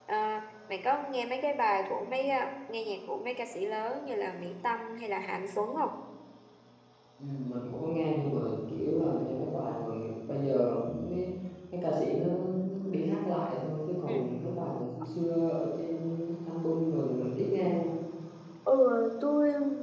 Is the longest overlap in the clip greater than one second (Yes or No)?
No